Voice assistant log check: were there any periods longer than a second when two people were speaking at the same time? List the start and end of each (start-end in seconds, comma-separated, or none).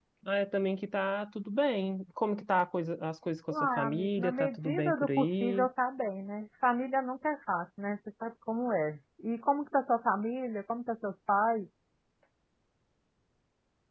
3.5-5.7